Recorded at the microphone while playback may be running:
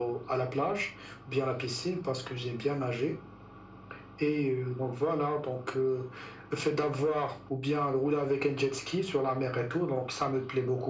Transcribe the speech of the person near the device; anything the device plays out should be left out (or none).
none